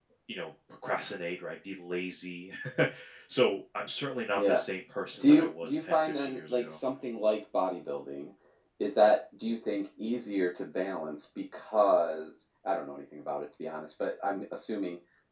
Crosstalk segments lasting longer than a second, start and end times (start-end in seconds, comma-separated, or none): 5.2-6.8